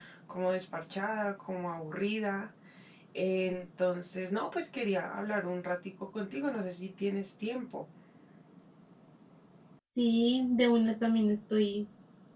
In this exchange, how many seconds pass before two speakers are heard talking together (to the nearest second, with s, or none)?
none